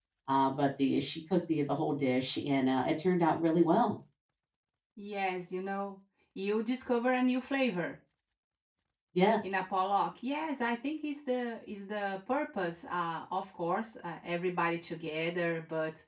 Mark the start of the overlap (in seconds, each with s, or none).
none